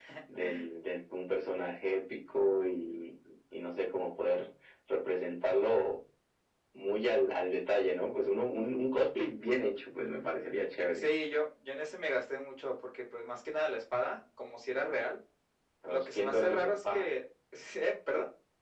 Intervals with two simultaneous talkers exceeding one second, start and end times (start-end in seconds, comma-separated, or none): 15.9-17.1